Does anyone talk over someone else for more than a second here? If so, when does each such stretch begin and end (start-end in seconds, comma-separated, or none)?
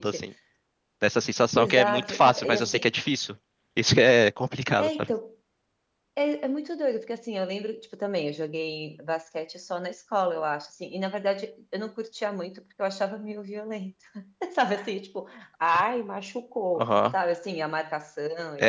1.6-2.9